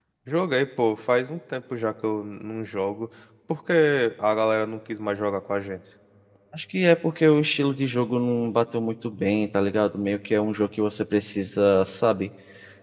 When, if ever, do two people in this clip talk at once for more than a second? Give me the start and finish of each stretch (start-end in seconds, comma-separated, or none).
none